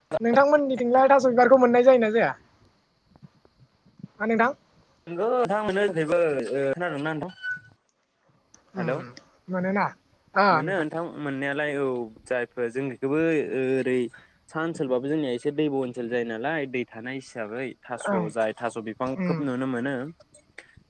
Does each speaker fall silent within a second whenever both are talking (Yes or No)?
Yes